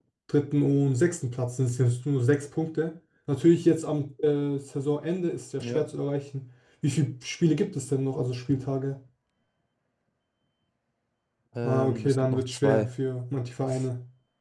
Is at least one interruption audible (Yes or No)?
Yes